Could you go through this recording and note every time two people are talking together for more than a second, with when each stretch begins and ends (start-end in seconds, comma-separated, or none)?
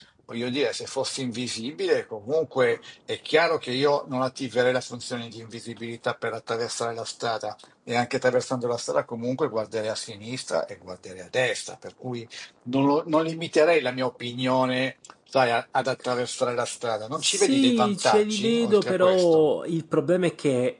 17.2-19.5